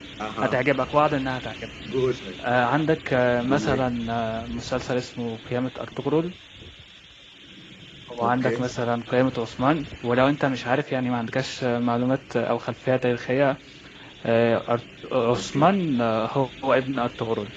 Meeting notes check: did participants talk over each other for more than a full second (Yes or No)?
No